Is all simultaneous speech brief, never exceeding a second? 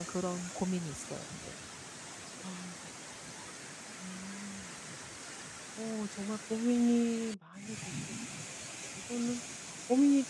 Yes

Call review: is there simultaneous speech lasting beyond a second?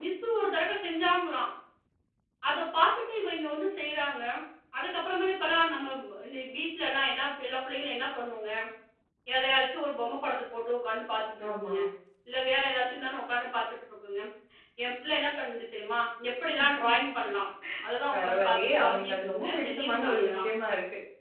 Yes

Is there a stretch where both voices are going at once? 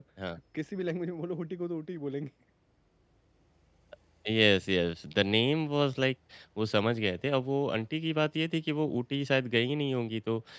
No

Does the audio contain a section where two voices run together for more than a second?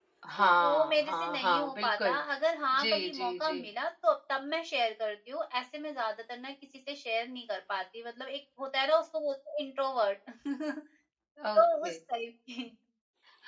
Yes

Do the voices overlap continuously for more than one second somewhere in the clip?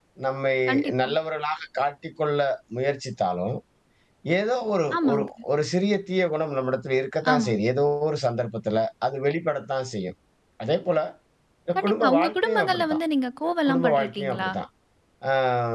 Yes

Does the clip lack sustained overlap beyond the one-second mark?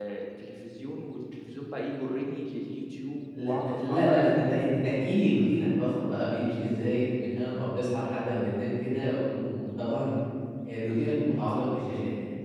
No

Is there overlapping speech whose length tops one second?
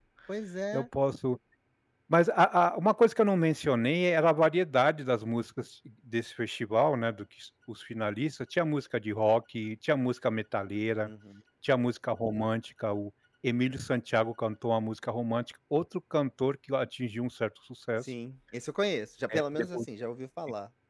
No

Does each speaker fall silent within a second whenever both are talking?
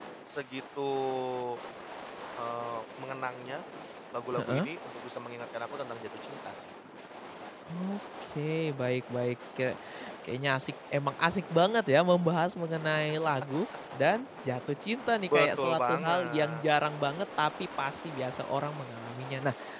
No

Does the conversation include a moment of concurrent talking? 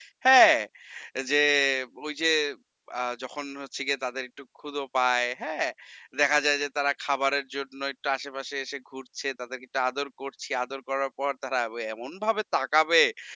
No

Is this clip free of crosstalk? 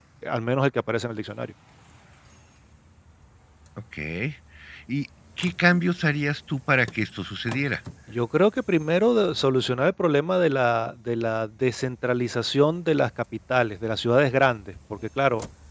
Yes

